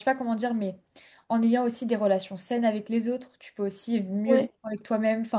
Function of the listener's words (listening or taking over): listening